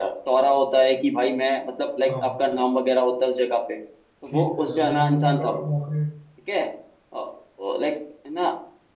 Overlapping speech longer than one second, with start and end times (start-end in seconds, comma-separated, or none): 4.3-5.6